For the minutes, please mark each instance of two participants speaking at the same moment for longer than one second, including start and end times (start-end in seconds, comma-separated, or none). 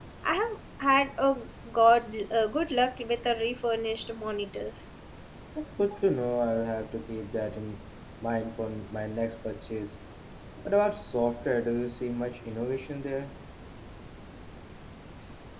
none